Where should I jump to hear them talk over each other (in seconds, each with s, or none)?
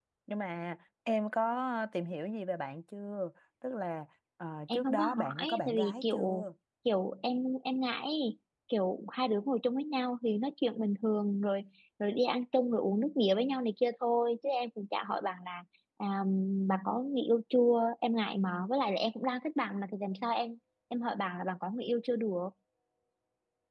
4.7 s